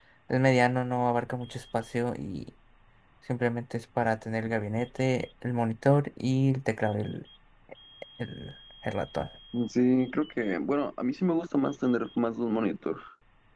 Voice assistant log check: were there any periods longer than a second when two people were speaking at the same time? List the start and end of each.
none

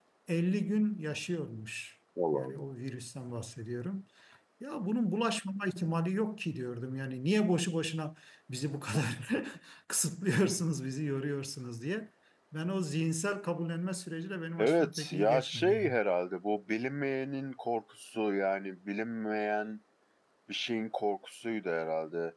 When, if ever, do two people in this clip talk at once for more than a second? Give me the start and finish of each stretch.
14.6-15.9

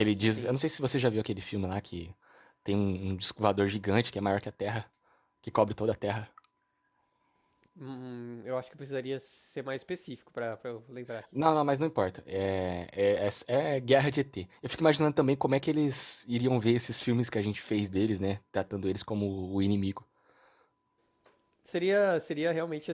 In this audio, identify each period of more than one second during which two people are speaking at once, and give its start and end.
none

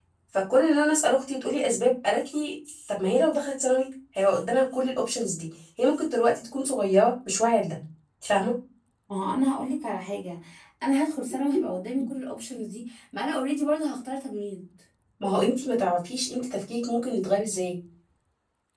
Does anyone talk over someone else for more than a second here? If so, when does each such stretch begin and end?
none

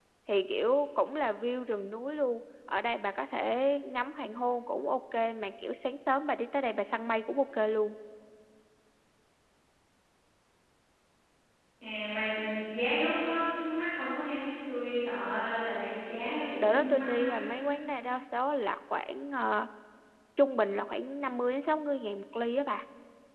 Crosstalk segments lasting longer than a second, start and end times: 15.9-17.4

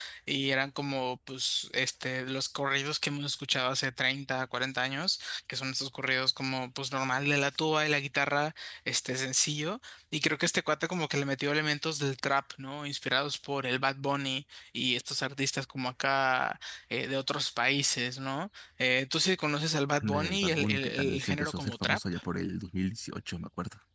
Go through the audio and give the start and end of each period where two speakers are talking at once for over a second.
20.0-22.0

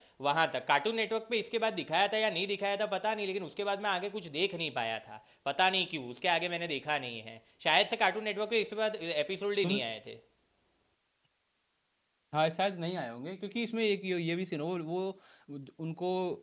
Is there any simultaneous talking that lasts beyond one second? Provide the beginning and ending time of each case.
none

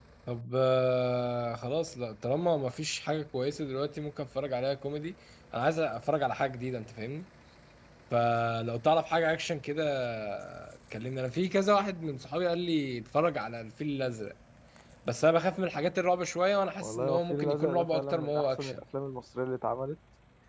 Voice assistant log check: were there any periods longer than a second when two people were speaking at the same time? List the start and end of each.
16.8-18.8

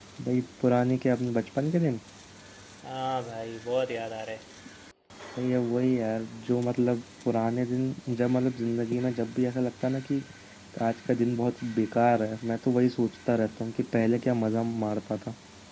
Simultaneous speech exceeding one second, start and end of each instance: none

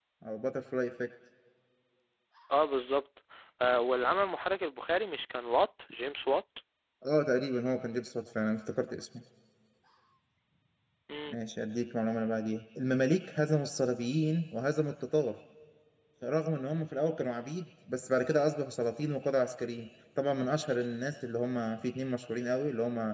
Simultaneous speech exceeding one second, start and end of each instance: none

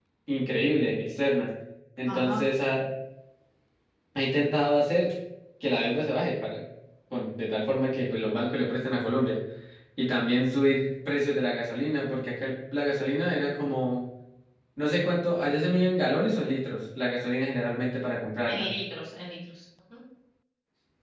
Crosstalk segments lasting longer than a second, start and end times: none

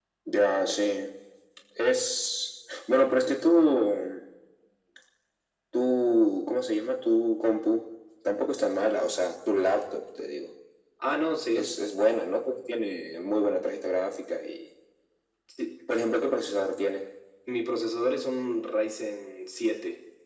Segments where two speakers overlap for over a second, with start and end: none

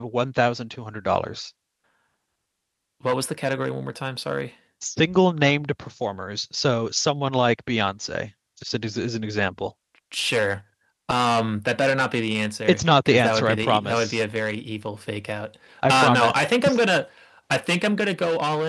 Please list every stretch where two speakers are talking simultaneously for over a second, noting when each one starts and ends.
12.7-14.2

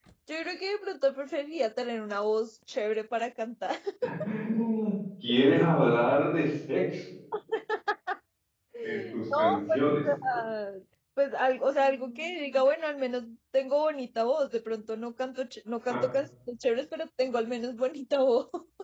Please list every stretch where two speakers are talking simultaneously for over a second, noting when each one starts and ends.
8.8-10.0

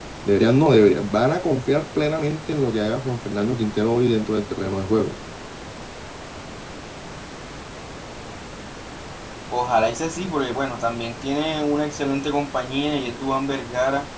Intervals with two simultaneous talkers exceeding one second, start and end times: none

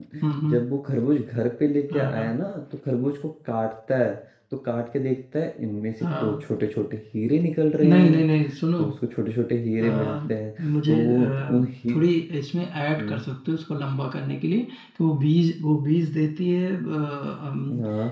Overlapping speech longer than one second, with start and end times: 10.6-12.0

